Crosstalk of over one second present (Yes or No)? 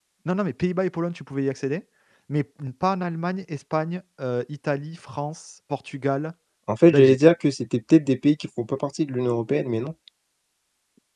No